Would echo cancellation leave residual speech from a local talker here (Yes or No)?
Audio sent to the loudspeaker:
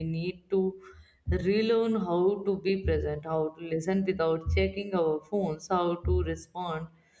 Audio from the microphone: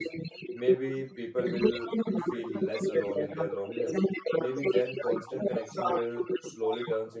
Yes